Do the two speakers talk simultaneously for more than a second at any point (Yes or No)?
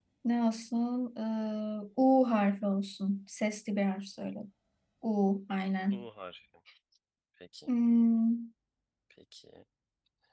No